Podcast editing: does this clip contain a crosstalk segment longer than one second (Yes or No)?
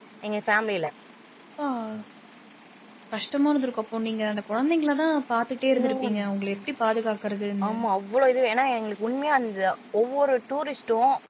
No